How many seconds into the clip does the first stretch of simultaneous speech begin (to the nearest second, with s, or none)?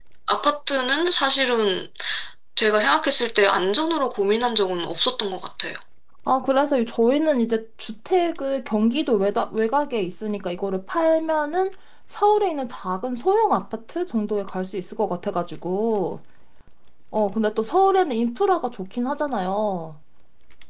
none